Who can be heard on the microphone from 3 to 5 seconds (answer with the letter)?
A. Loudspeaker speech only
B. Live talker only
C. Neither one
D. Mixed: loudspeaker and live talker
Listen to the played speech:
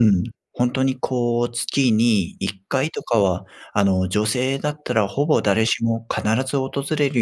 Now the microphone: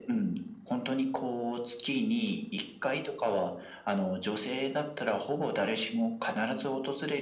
A